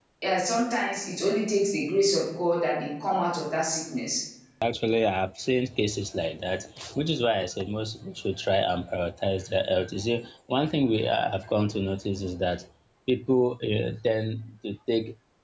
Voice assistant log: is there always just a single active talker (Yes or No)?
Yes